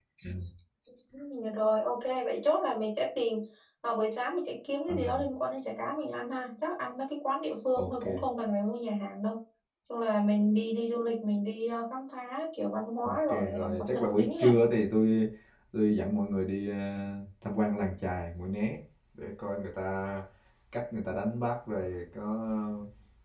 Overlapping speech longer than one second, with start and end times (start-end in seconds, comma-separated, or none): 13.1-14.5